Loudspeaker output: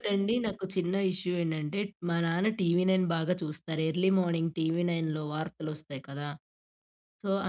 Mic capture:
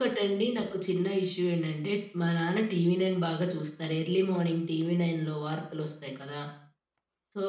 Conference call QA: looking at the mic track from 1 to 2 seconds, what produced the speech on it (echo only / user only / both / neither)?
echo only